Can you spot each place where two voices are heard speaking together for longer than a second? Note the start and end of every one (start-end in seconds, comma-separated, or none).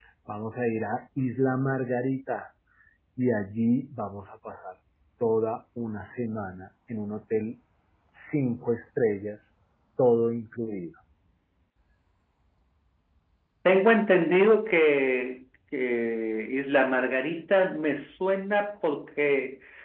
none